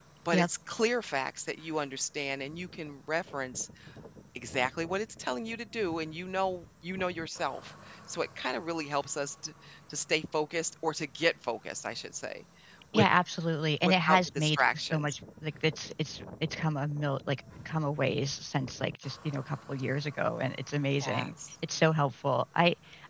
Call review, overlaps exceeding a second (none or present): present